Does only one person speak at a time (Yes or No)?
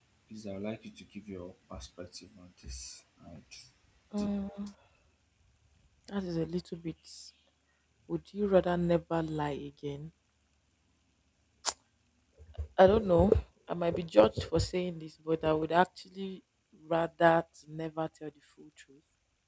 Yes